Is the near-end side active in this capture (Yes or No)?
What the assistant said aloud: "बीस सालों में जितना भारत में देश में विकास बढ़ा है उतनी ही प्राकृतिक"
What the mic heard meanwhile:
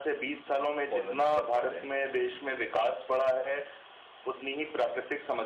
Yes